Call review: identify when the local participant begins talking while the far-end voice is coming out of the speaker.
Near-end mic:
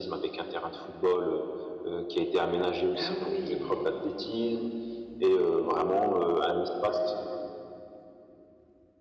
3 s

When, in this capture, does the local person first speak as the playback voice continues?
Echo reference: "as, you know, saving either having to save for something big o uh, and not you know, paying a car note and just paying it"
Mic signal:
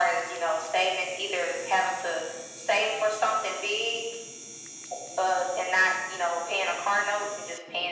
none

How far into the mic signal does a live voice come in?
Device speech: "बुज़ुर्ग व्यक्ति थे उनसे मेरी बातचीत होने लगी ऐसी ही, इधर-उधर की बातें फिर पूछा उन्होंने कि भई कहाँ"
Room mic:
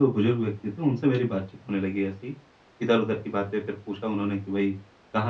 none

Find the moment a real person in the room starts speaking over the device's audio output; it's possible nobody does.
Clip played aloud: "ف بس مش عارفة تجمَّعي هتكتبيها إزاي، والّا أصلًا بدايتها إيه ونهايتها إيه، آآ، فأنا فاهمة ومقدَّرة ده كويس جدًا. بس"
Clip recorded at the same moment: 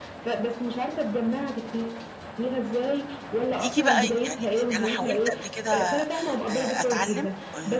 4 s

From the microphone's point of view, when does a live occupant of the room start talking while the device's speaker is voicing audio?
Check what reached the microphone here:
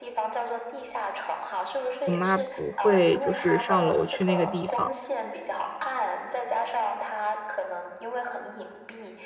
2 s

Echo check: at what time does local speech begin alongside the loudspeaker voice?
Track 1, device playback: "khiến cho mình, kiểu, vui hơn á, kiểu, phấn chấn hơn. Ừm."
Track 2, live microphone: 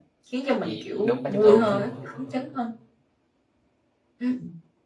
1 s

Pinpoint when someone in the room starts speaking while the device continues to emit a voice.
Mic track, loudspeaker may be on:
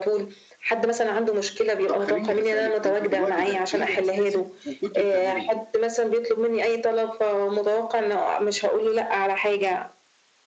2 s

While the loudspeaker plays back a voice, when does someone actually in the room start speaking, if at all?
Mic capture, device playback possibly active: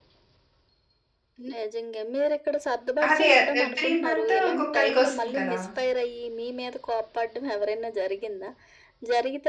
3 s

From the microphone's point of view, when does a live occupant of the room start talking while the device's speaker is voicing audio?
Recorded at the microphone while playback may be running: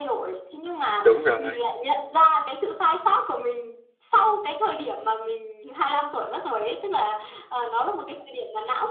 1 s

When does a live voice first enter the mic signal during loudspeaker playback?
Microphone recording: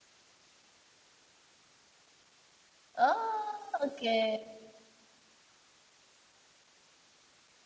3 s

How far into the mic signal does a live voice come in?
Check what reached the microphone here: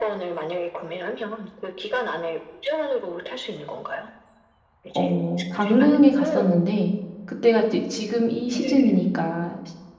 5 s

